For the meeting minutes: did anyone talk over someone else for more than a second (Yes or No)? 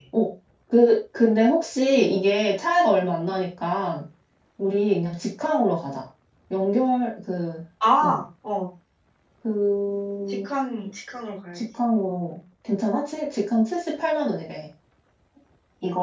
No